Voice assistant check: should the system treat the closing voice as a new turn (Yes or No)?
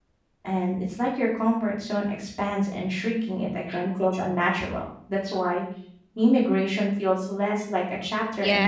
Yes